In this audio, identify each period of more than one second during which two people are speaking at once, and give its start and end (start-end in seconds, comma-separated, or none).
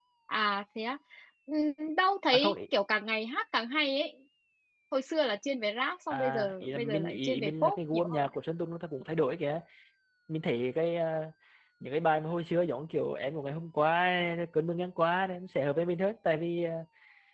6.1-8.2